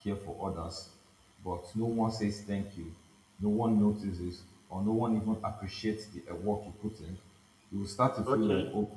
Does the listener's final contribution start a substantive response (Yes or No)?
No